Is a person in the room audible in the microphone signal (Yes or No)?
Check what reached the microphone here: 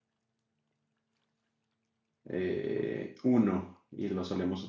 Yes